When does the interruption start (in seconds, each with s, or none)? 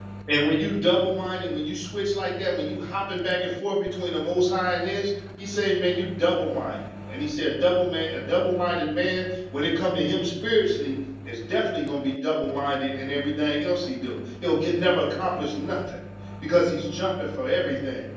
none